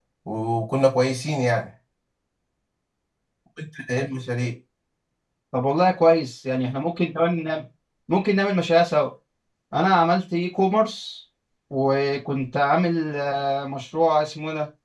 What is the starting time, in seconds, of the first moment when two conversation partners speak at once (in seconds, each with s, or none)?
none